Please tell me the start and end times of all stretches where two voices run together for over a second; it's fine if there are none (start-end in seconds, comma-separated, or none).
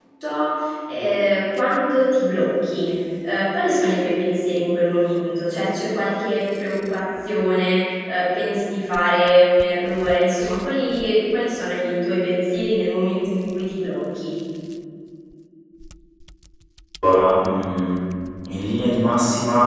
none